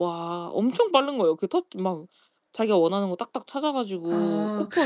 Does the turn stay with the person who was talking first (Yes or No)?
No